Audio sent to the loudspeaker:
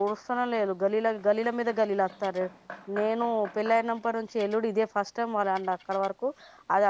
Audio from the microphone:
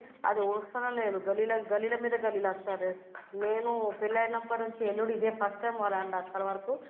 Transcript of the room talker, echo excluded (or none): none